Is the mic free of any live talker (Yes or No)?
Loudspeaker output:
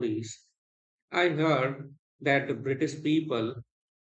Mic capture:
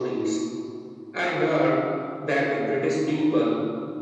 Yes